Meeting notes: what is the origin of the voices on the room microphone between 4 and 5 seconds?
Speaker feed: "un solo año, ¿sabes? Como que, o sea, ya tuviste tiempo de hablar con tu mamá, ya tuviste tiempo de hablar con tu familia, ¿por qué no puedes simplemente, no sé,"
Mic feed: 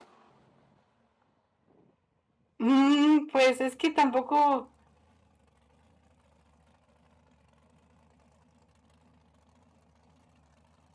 user only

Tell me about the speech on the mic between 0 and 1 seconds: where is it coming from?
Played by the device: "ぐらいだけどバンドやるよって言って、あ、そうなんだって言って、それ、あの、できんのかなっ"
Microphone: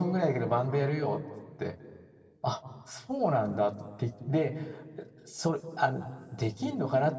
echo only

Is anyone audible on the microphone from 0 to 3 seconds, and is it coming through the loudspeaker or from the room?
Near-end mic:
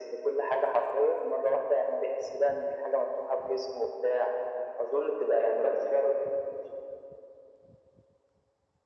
echo only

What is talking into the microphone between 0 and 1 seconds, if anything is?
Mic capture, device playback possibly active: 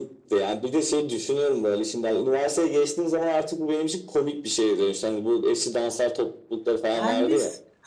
echo only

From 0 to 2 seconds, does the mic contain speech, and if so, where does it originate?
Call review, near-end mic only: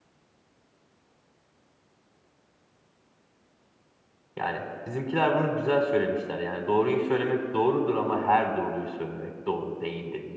neither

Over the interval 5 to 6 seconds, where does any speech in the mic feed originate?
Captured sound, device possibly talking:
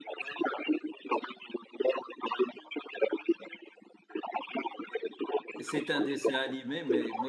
both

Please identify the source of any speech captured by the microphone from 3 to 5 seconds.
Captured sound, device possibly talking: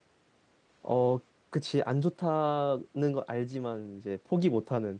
user only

